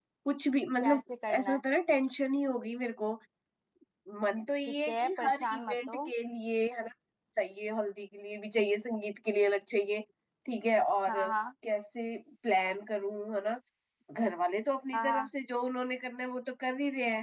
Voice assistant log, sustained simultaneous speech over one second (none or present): present